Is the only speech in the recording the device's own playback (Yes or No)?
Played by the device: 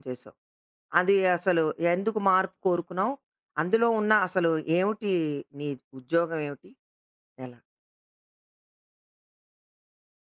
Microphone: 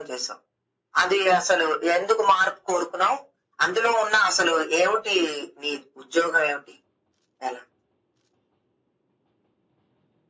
Yes